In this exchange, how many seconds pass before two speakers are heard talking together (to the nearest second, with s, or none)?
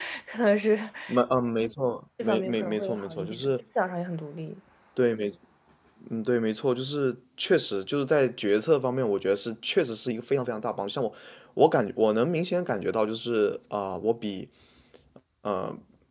2 s